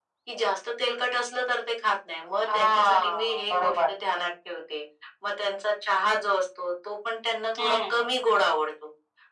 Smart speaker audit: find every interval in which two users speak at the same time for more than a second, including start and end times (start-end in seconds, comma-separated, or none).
2.5-3.8